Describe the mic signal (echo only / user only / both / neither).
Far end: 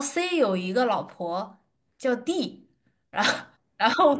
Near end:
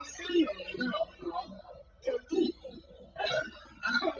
echo only